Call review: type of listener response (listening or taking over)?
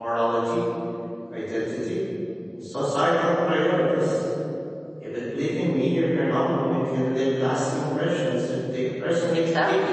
taking over